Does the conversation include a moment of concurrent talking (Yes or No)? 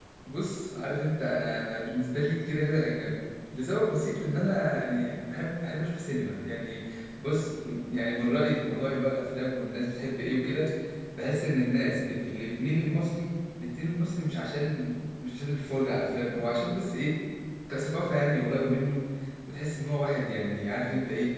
No